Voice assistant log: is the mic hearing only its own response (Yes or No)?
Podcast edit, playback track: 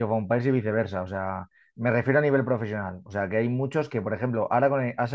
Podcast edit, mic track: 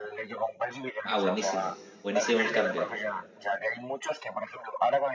No